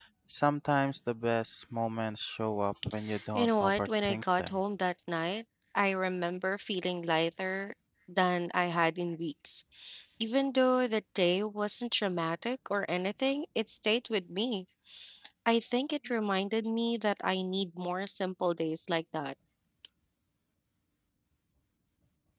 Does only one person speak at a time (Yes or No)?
No